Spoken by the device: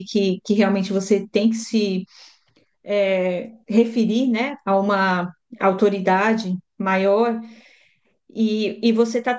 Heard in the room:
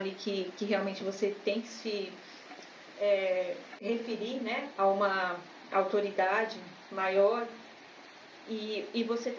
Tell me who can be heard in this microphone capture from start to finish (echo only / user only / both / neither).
echo only